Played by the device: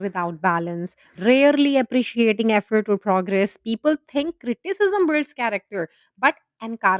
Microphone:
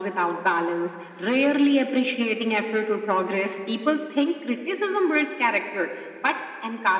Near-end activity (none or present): none